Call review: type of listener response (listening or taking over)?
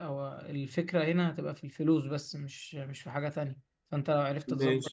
listening